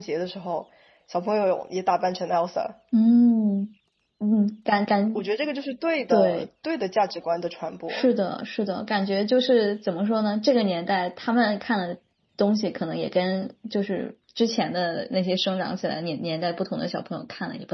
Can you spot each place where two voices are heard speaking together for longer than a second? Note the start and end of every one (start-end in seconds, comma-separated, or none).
none